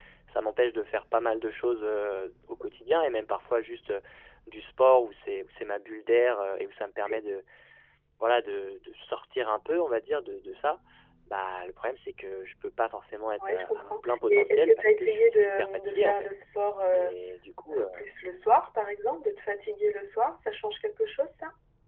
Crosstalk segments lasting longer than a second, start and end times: 13.4-16.3

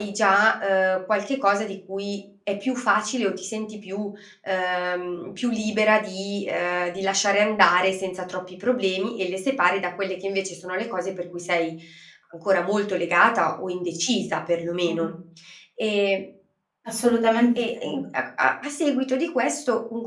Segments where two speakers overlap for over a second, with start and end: none

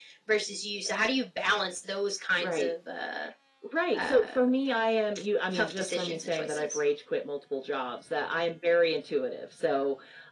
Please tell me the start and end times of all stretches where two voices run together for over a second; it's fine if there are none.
5.5-6.8

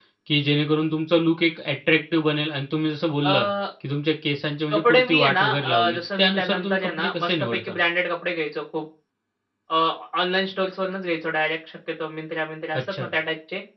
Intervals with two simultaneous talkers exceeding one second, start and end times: 4.7-7.7

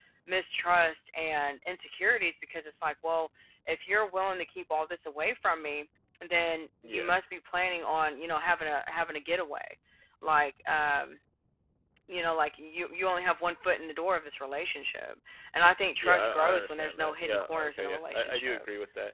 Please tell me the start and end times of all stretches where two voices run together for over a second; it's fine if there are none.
16.0-18.6

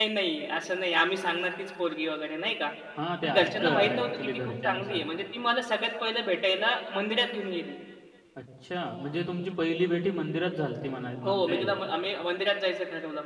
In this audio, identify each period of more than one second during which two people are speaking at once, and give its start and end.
3.2-5.0

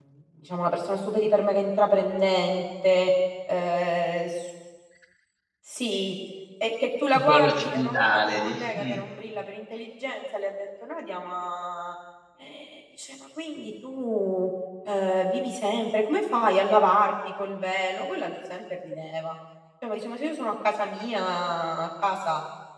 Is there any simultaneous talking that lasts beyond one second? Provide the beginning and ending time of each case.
7.2-9.0

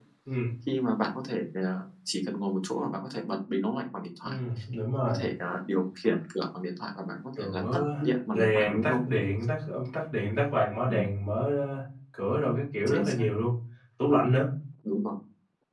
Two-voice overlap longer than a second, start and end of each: 7.4-9.0

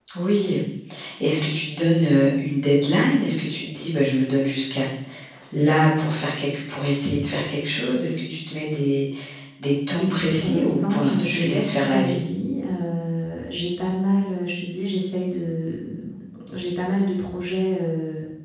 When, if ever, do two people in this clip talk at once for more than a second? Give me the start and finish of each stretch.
10.0-12.2

